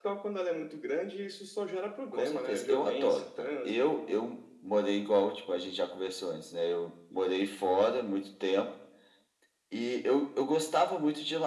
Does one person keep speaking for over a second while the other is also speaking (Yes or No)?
Yes